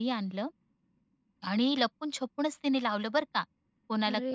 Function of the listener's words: listening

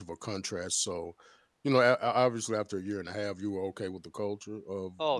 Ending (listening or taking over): taking over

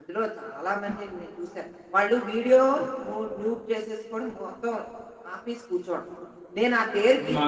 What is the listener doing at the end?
listening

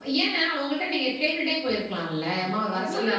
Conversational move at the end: taking over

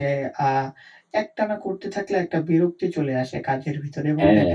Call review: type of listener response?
listening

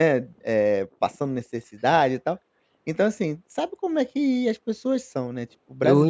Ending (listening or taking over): taking over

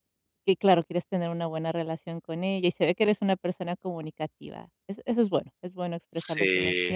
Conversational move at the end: listening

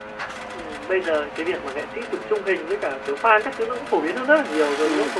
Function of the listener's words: listening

